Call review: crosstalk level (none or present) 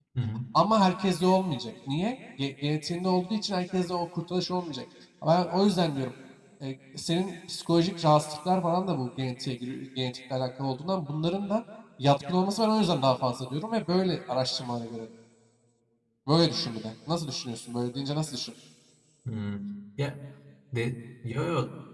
none